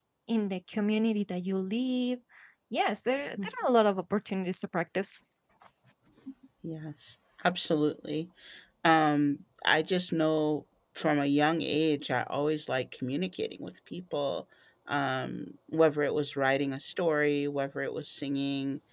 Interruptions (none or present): none